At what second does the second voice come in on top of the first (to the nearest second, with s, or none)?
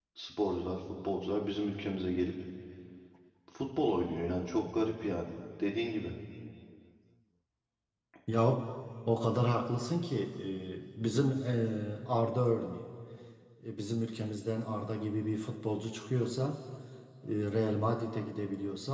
none